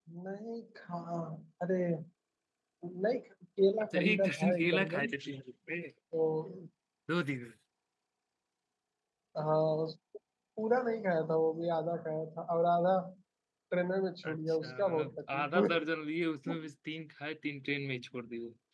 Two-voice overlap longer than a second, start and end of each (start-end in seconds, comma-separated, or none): 3.9-5.1, 14.2-15.7